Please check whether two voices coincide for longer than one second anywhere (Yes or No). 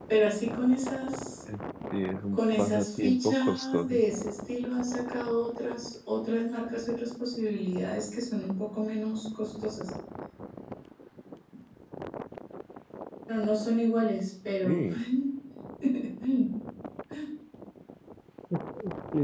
Yes